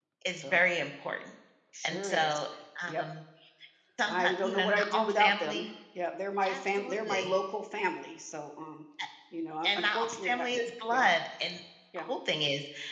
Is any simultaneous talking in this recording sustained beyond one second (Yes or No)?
Yes